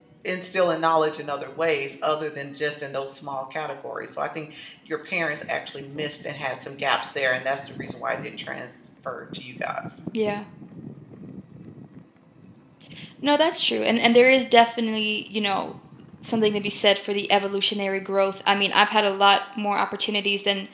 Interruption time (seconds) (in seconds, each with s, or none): none